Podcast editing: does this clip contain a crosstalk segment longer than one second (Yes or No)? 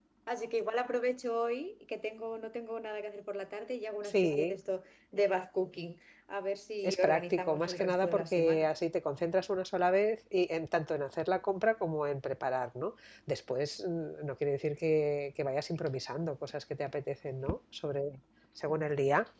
Yes